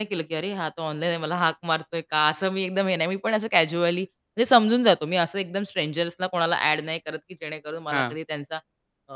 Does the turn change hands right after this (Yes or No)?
No